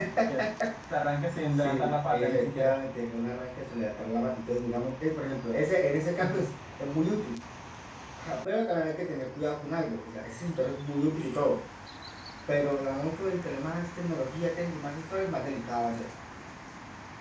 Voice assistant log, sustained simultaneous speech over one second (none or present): present